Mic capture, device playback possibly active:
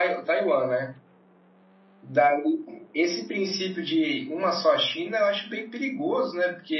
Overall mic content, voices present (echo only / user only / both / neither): user only